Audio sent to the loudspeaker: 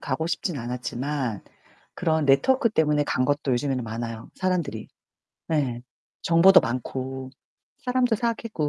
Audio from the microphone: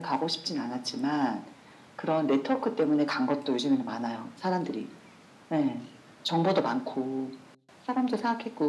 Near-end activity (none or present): none